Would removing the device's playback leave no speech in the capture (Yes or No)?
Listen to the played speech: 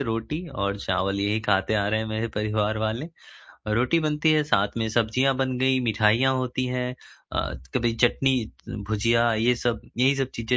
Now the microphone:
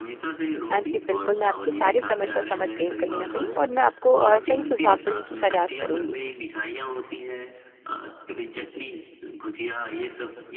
No